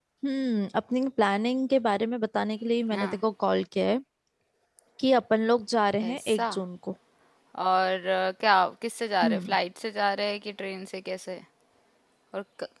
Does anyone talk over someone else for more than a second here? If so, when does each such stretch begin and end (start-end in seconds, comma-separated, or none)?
none